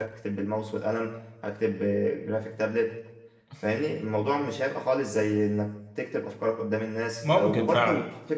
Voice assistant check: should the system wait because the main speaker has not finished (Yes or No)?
Yes